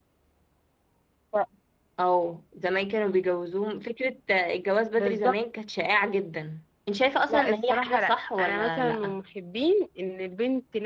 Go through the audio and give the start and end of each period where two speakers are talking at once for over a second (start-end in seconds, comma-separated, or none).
7.3-9.2